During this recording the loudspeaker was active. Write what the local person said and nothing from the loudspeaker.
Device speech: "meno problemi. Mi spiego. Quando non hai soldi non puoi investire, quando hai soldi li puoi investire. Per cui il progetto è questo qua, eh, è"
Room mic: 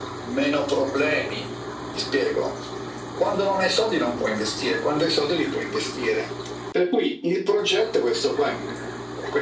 none

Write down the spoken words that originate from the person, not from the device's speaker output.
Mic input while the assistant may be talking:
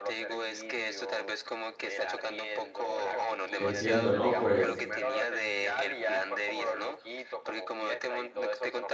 entiendo, ¿no? Pues

